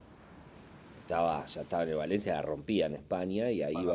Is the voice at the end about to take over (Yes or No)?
Yes